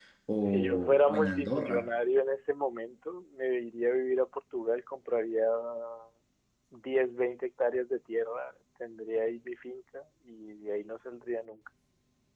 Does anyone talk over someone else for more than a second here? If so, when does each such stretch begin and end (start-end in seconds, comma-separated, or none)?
0.5-1.9